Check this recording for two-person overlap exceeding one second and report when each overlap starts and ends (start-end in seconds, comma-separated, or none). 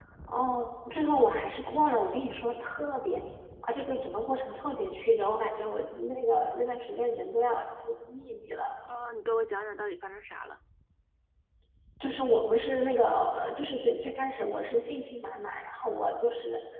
none